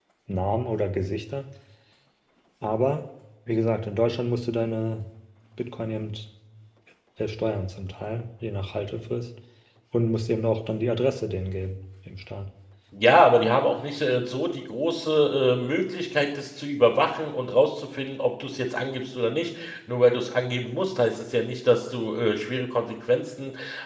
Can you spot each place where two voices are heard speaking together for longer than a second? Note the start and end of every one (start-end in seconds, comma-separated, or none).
none